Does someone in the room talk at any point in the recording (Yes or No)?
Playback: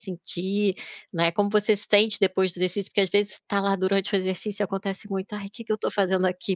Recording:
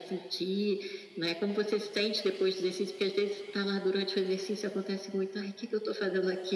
No